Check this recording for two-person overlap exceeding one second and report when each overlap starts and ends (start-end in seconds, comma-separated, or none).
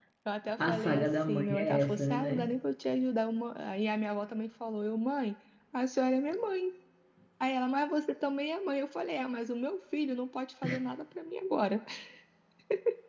0.6-2.5